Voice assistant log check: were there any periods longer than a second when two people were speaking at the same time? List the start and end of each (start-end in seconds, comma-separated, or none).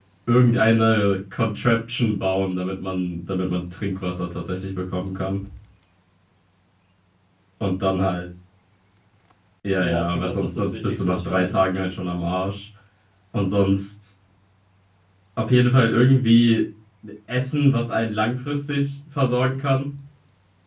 9.8-11.5